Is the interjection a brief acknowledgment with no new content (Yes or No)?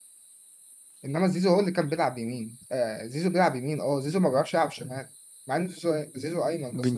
No